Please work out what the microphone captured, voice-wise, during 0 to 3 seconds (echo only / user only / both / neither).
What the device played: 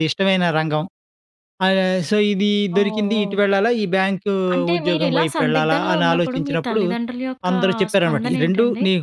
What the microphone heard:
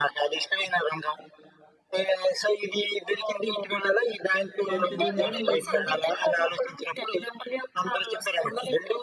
echo only